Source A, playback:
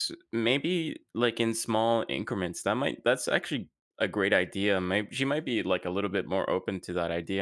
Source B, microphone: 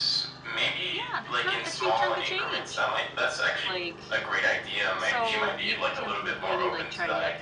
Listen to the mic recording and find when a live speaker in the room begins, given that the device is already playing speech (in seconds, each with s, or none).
0.9 s